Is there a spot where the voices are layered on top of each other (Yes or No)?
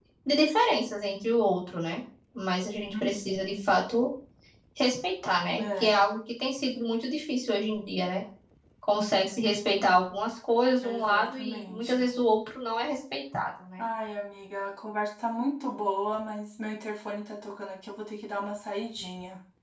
Yes